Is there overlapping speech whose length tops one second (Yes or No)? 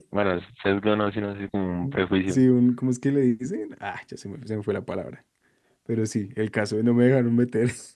No